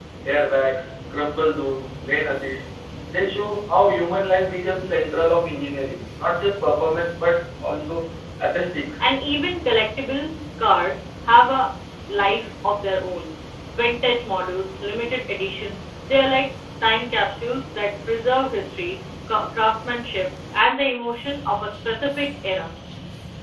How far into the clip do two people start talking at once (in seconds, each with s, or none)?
none